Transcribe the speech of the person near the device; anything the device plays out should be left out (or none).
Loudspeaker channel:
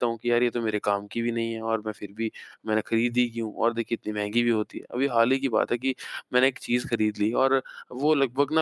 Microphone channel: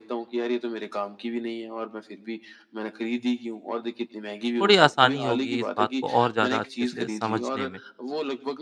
थोड़ी आसानी होगी इस बात को और ज़्यादा अच्छे से समझने में।